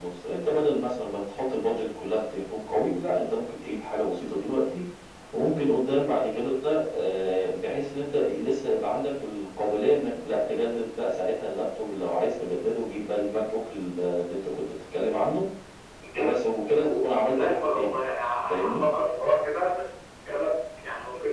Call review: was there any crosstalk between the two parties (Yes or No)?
Yes